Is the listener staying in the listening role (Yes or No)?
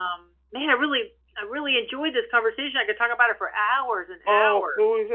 No